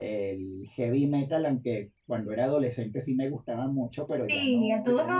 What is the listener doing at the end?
taking over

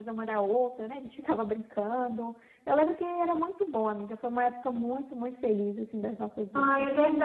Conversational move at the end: taking over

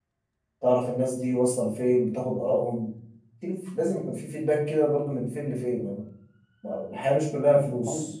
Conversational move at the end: taking over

